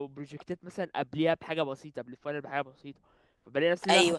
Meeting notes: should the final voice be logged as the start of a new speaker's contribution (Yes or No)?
No